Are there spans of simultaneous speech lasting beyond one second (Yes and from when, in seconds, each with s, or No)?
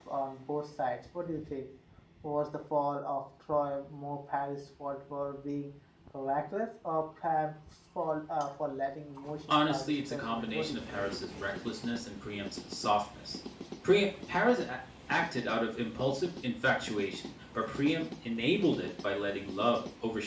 Yes, from 9.5 s